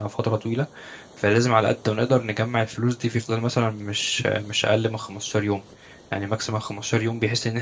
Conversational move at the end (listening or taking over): listening